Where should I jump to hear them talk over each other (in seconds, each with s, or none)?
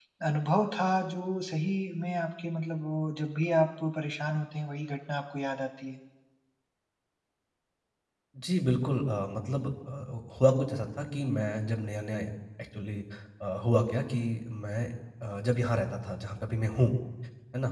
none